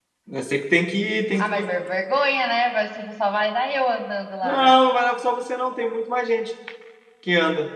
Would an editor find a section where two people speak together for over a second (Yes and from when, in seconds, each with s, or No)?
No